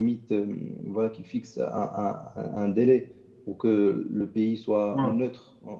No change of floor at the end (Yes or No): Yes